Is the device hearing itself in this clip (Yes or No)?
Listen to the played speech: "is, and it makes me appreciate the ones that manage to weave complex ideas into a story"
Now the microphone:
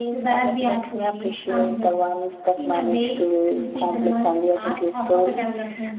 Yes